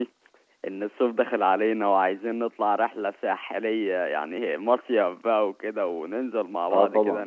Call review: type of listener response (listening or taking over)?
listening